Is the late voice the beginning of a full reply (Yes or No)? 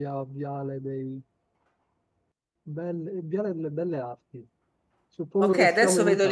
Yes